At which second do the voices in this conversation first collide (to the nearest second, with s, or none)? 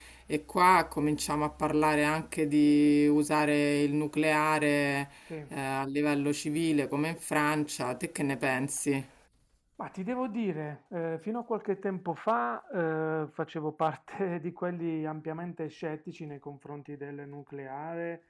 none